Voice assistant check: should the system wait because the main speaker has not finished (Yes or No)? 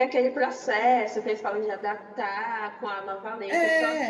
Yes